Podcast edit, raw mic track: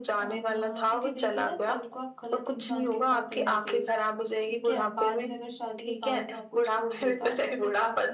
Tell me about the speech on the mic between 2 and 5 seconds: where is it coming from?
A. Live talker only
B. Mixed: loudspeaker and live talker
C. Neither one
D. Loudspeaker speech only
B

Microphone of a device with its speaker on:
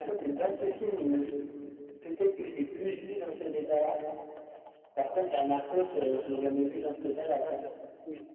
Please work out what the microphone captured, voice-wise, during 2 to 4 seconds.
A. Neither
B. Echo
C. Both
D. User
B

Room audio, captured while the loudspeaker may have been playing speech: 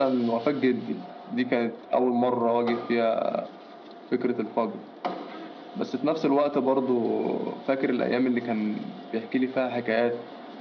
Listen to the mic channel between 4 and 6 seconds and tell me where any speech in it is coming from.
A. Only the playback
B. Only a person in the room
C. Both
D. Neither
A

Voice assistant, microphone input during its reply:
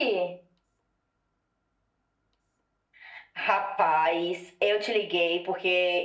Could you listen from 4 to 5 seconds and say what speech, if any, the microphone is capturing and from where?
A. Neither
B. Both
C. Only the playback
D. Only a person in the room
C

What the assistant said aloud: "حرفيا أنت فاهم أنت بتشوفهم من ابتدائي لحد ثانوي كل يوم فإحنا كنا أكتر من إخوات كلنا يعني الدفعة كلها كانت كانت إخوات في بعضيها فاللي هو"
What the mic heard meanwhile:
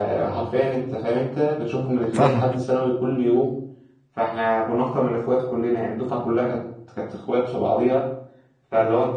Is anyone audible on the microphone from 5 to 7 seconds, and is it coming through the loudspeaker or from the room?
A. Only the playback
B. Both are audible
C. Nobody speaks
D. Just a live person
A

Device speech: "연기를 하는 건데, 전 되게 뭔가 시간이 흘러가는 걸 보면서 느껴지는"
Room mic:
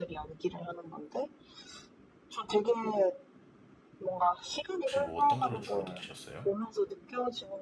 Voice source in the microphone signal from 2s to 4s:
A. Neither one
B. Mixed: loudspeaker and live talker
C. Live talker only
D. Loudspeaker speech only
D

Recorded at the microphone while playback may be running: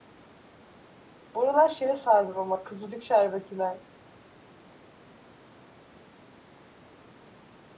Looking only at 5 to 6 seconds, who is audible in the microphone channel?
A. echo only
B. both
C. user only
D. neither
D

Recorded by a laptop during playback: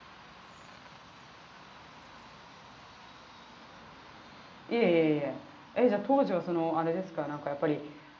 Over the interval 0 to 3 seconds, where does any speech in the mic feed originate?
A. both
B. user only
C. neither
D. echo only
C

